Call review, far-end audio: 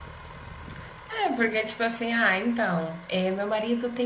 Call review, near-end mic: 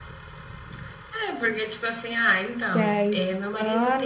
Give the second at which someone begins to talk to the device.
2.7 s

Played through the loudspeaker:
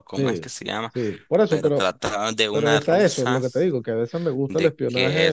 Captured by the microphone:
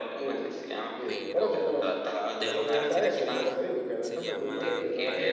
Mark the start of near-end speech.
1.0 s

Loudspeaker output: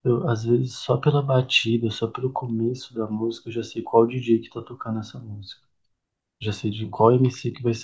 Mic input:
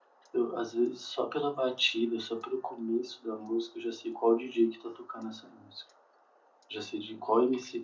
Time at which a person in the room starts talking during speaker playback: none

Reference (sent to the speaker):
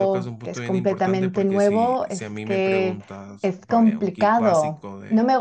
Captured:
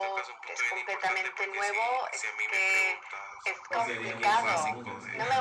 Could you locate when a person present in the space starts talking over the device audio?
3.7 s

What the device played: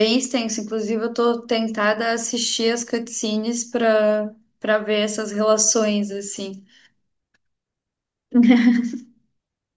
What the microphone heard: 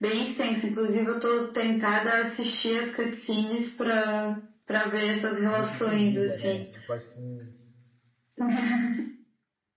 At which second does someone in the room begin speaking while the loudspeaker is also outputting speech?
5.5 s

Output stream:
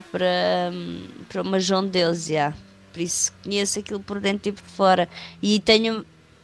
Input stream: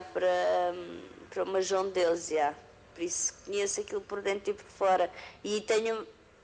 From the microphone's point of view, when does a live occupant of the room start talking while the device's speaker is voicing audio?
none

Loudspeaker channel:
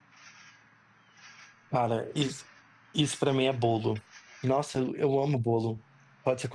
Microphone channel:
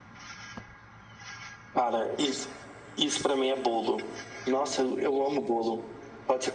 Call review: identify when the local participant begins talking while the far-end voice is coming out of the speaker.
none

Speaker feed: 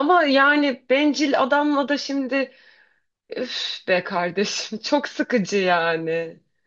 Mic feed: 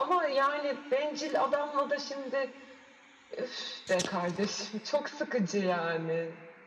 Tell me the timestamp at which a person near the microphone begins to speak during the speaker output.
none

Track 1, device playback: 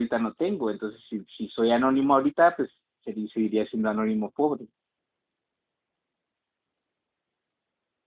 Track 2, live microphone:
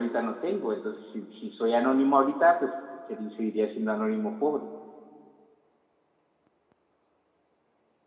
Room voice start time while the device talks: none

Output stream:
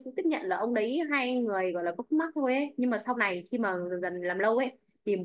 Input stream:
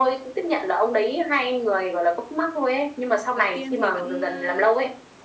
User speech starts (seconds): 3.3 s

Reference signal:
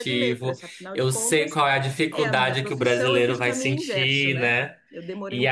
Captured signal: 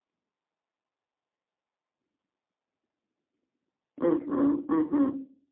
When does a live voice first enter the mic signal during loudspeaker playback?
4.0 s

